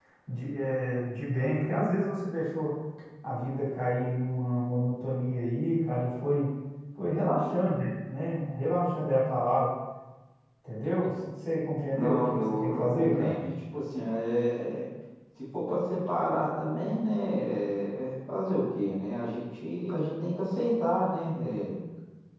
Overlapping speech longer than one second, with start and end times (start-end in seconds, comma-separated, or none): 11.9-13.3